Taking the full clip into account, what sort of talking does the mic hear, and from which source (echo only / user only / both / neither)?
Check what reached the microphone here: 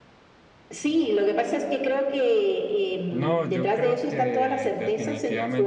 both